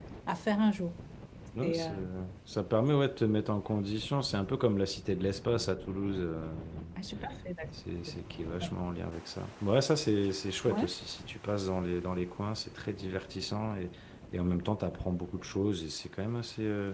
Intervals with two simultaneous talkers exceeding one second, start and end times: none

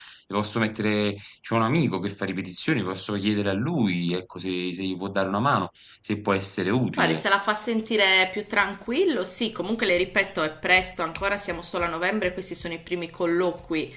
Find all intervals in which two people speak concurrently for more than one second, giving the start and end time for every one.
none

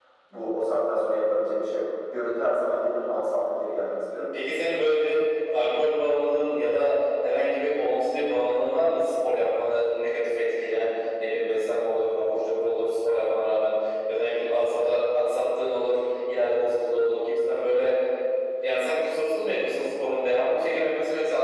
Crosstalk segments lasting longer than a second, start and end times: none

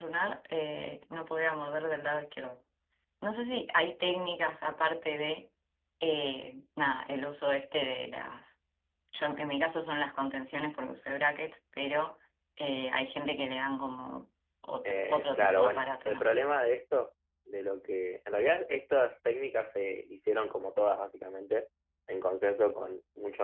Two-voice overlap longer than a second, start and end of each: 14.8-16.3

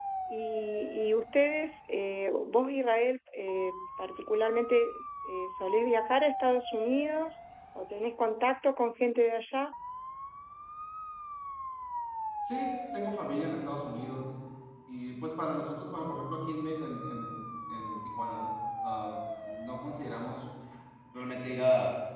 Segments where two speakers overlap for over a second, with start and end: none

